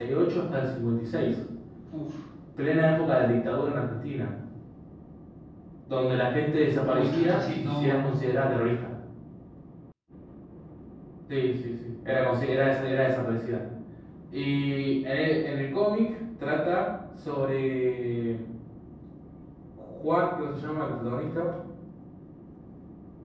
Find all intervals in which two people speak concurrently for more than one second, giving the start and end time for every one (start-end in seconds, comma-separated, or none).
6.9-8.5